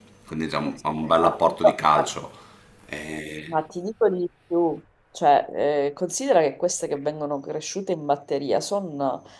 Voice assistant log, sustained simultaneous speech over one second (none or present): present